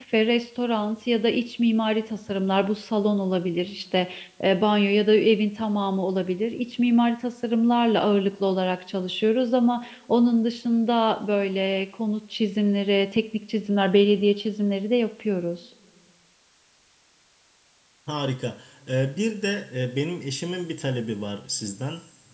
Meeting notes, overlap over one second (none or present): none